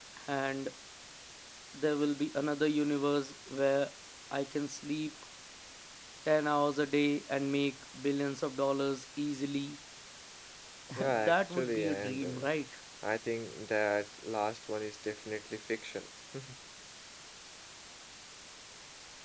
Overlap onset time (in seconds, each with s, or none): 11.1 s